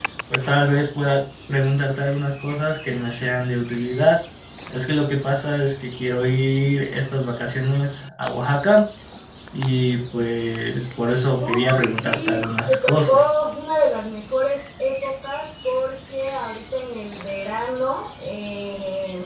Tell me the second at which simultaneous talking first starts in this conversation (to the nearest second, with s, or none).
11 s